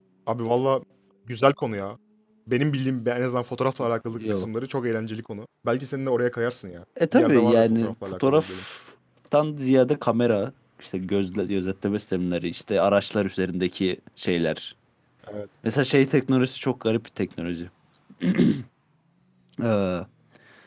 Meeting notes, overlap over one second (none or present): present